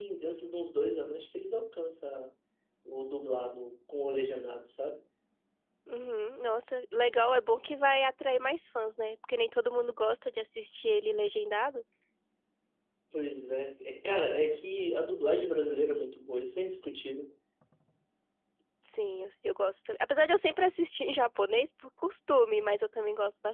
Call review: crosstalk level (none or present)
none